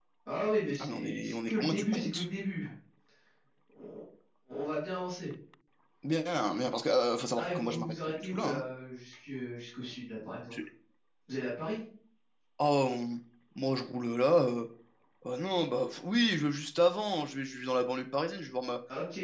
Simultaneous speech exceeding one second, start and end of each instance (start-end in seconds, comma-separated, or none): 0.8-2.2, 7.4-8.6